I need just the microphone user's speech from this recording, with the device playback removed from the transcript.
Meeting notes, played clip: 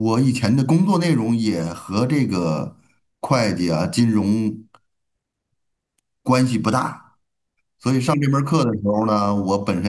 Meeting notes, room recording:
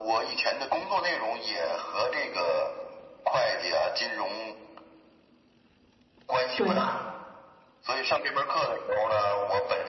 对

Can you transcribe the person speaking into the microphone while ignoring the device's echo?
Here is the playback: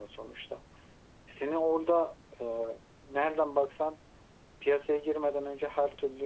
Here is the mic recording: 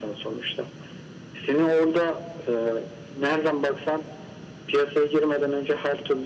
none

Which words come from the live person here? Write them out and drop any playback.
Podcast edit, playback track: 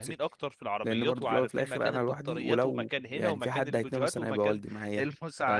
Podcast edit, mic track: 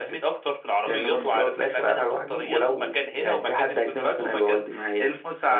مم.

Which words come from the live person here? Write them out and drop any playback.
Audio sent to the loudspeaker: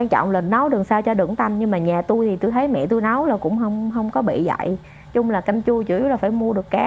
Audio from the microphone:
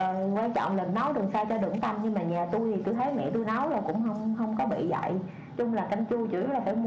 none

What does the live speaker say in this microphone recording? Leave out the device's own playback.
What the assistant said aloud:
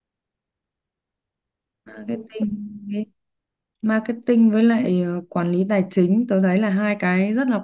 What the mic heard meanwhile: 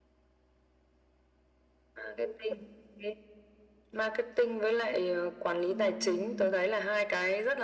Ừ.

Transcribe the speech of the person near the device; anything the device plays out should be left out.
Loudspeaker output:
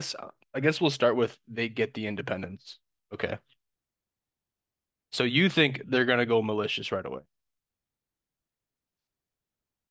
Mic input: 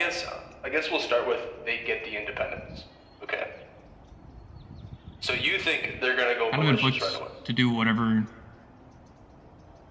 kind of inflict to do whatever

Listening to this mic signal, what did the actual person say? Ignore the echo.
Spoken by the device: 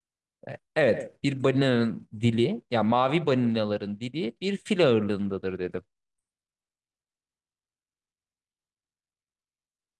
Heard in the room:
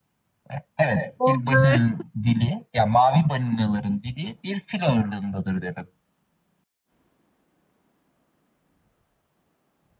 Oley.

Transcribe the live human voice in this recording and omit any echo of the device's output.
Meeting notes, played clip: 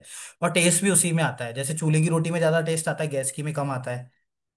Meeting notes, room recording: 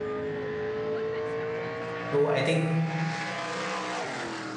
तो आई थिंक

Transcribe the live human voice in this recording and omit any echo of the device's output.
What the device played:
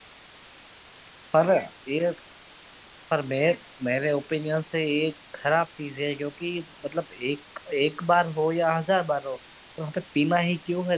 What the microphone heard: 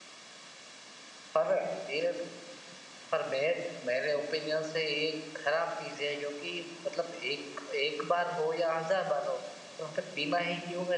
none

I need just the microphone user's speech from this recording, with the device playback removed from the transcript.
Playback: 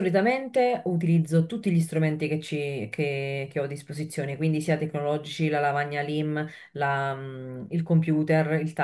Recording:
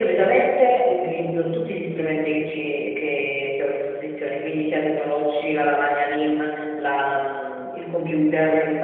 none

